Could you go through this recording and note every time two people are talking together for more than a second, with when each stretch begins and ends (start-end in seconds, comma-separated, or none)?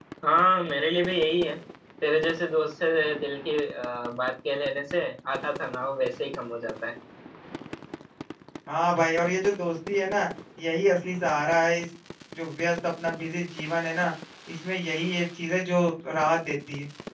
none